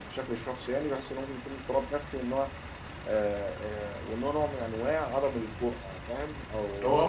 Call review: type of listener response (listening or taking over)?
taking over